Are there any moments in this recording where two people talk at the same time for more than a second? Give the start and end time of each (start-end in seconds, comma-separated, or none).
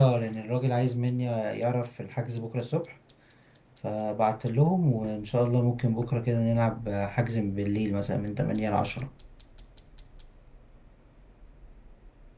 none